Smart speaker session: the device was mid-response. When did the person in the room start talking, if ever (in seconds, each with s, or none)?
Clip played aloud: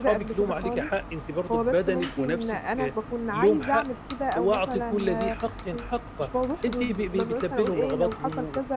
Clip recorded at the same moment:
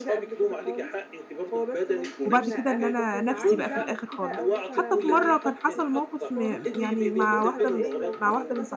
2.2 s